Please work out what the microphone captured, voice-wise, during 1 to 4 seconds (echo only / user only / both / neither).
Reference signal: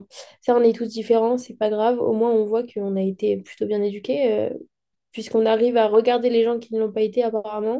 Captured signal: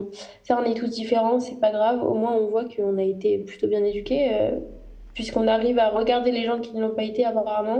echo only